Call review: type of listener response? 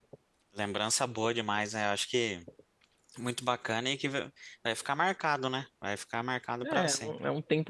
taking over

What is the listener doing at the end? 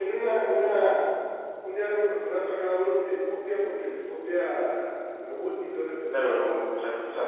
taking over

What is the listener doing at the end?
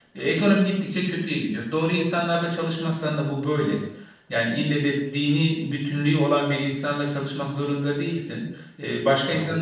listening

